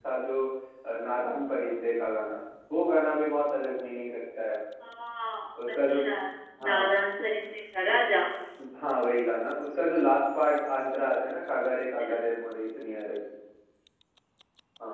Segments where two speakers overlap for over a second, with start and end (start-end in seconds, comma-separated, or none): none